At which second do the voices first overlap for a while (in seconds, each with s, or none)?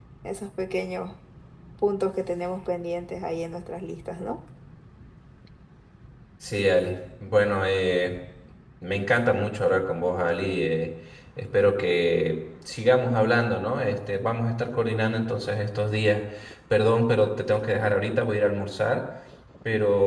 none